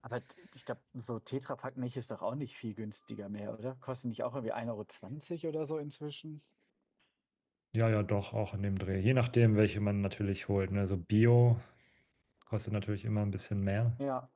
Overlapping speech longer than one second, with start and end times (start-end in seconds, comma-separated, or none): none